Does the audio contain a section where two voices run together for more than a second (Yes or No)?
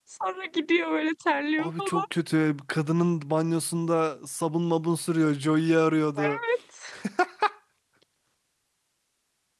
No